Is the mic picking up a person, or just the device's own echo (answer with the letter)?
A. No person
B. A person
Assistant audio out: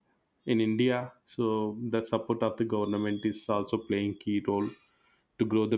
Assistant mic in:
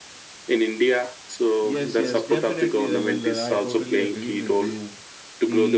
B